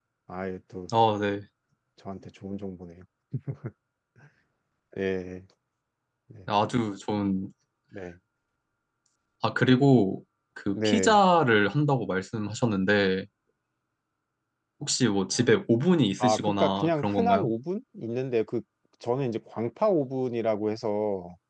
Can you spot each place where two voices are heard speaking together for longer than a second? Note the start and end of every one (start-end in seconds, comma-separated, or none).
16.2-17.5